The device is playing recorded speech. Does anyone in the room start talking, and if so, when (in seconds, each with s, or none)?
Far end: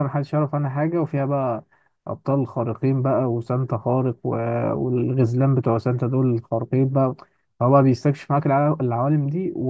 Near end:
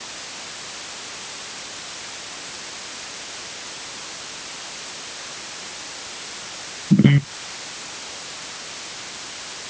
6.9 s